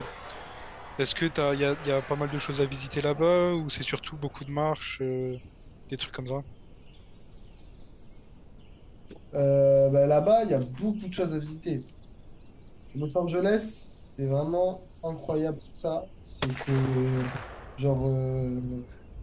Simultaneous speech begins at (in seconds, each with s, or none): none